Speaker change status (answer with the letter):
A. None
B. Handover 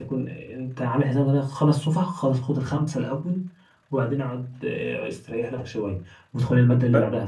A